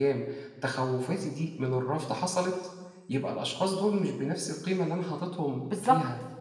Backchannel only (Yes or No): No